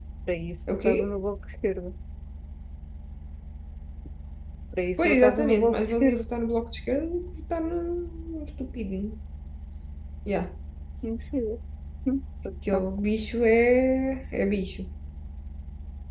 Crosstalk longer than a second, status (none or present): present